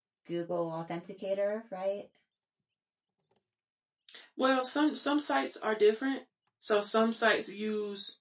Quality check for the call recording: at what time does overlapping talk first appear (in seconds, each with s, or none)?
none